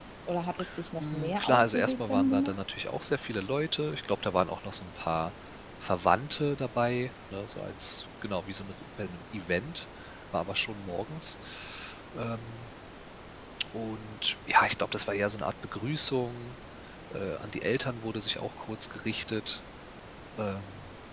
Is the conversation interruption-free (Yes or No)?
No